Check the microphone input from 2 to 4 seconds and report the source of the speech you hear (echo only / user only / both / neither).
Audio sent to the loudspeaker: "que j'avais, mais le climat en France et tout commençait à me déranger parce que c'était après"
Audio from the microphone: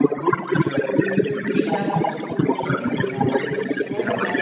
both